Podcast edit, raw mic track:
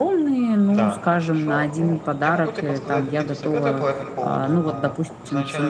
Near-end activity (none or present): present